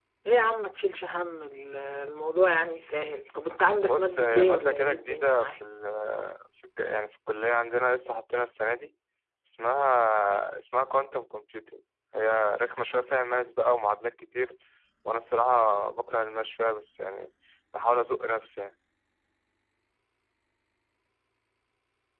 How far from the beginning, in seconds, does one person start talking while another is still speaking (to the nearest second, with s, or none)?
4 s